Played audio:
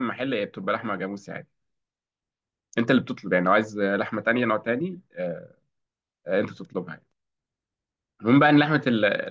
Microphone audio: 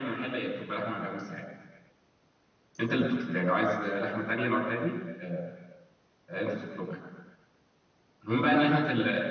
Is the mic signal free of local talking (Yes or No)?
Yes